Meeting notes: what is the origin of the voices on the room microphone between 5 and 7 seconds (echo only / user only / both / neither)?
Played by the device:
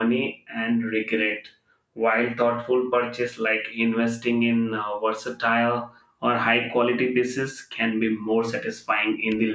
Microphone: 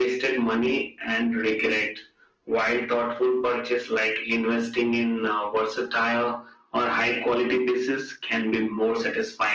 echo only